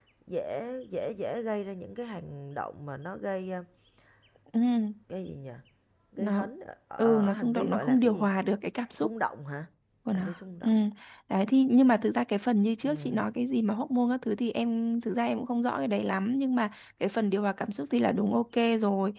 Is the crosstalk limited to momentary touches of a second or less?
No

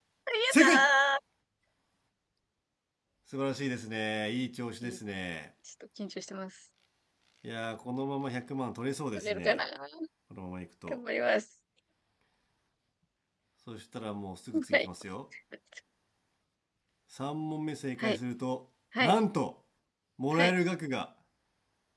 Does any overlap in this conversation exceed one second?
No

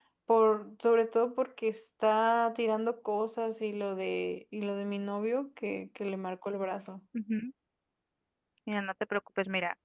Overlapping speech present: No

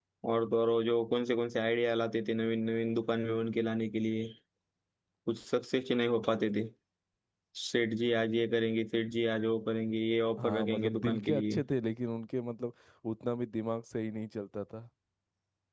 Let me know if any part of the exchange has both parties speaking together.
Yes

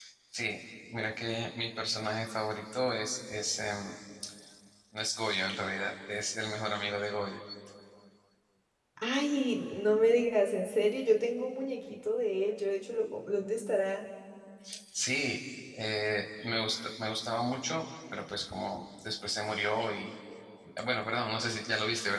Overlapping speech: No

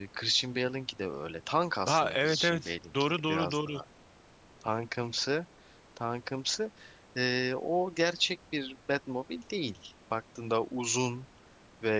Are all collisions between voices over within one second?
No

